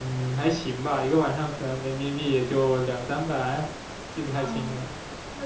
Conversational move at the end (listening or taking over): taking over